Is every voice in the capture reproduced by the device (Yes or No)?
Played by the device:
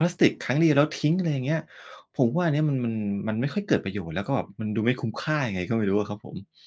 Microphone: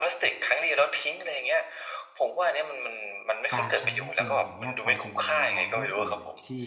No